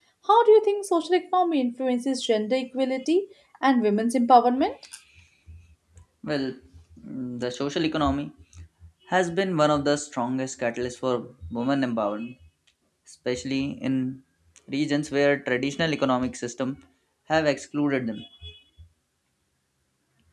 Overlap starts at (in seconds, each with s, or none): none